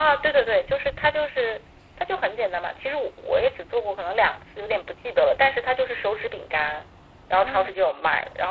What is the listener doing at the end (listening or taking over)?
listening